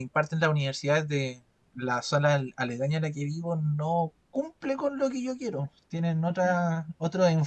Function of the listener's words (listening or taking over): listening